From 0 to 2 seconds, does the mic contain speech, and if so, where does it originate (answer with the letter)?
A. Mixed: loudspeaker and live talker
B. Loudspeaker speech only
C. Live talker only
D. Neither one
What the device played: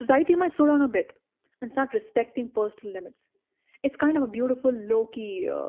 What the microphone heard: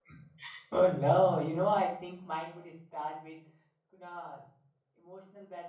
C